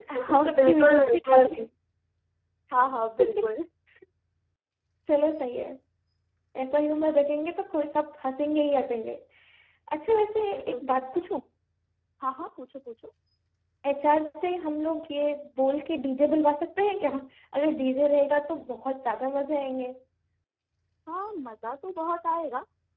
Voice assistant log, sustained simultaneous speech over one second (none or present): present